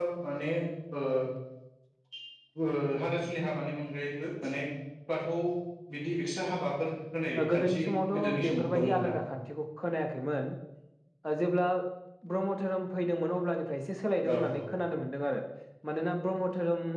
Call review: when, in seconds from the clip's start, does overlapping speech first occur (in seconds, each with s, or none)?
7.5 s